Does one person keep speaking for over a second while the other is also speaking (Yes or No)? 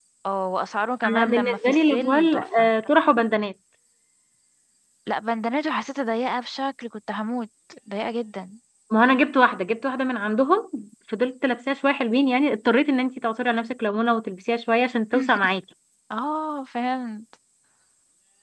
Yes